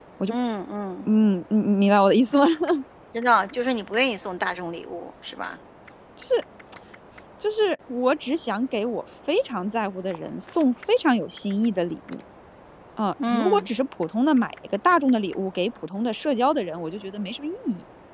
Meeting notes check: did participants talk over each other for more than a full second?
No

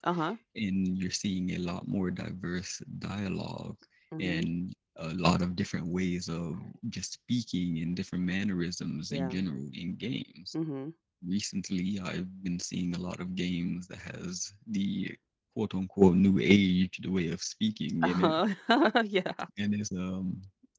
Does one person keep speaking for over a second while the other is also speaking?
No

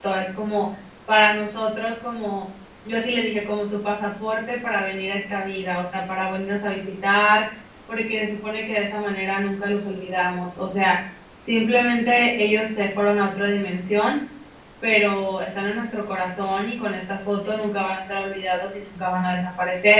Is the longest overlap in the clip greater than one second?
No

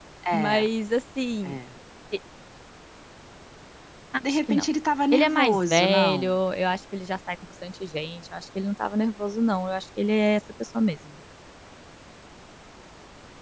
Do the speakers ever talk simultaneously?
Yes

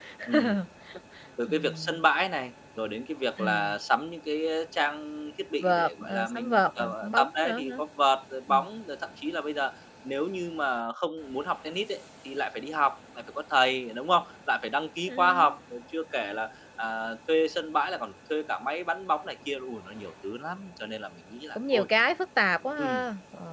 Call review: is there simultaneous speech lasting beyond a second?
Yes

